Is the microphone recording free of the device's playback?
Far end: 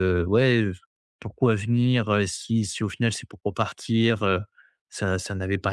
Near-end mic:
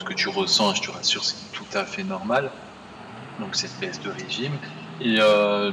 Yes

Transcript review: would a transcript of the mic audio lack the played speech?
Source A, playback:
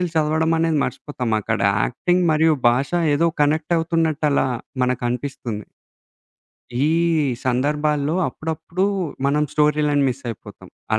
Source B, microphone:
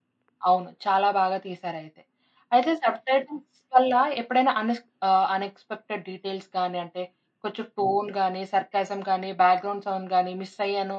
Yes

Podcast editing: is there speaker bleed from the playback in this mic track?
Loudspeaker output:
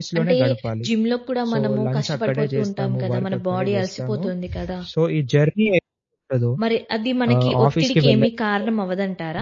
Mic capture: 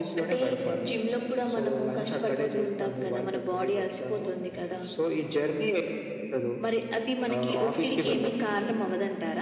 Yes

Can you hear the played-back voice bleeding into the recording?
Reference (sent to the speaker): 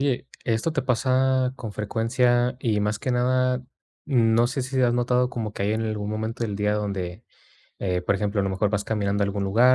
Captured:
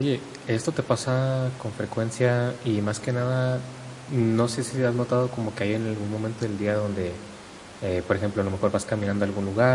Yes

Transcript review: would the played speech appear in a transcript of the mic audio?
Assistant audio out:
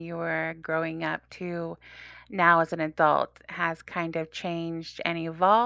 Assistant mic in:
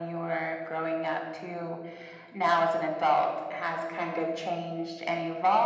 Yes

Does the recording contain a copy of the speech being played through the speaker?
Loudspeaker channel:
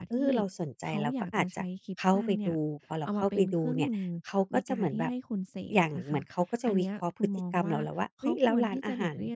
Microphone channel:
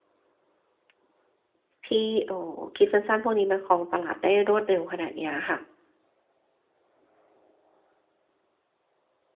No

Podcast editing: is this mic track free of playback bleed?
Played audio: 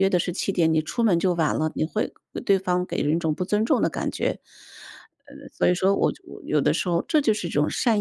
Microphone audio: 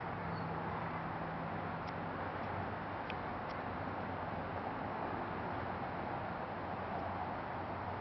Yes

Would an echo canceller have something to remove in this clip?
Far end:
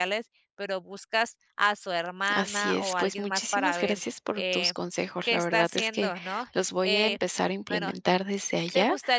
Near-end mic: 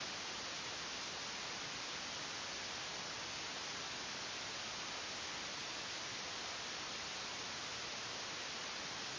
No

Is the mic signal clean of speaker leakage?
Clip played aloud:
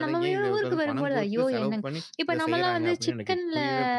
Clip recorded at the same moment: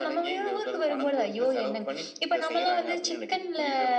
No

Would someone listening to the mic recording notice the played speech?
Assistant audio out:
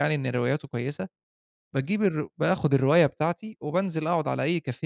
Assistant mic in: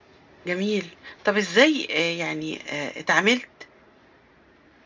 No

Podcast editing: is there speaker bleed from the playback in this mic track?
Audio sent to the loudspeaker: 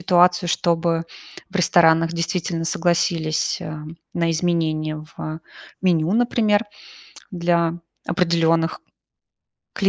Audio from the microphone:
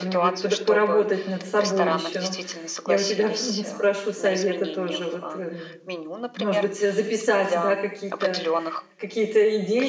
Yes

